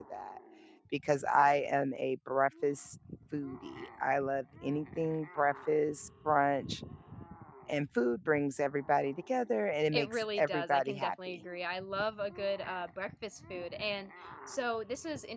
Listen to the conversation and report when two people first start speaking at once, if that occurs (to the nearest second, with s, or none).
10 s